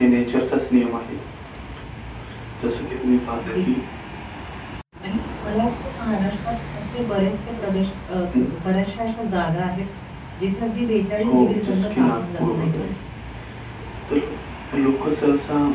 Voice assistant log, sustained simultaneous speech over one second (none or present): present